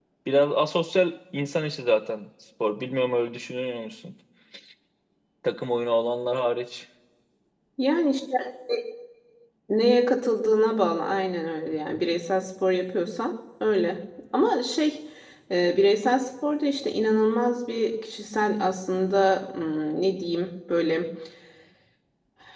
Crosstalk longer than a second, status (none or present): none